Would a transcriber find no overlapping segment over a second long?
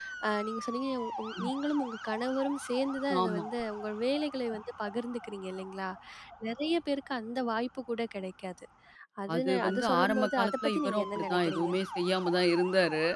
No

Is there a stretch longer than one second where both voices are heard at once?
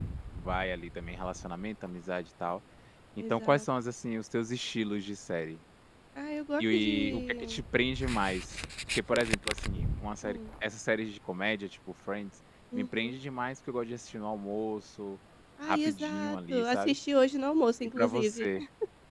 Yes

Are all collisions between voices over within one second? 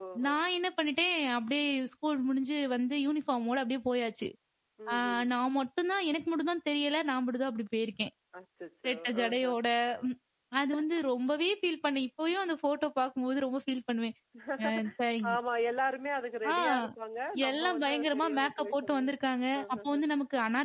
No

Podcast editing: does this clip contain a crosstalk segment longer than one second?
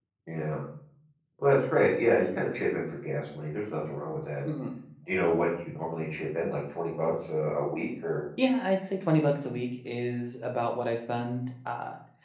No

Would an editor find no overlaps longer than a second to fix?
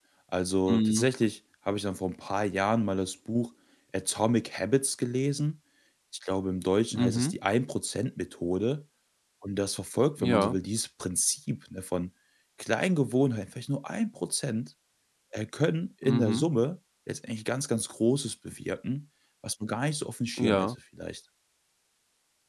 Yes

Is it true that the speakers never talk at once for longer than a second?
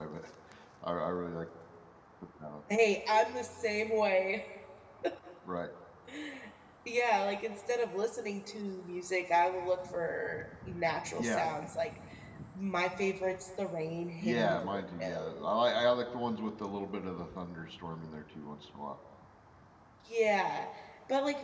No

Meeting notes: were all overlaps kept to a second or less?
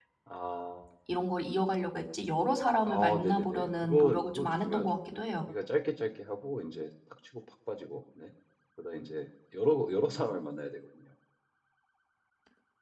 No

